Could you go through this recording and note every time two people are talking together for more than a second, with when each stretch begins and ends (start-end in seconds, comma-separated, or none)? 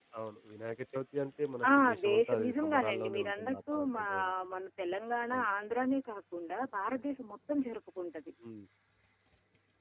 1.8-4.0